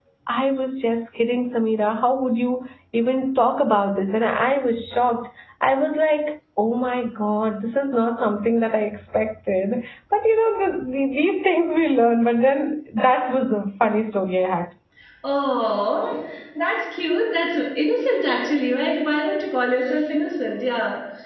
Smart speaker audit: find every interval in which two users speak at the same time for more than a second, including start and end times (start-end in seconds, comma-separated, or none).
none